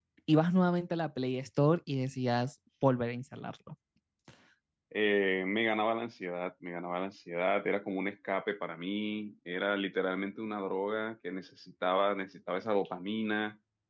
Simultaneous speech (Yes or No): No